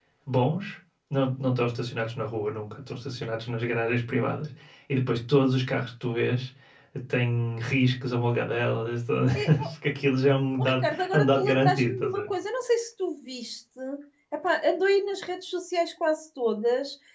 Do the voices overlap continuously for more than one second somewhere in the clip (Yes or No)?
Yes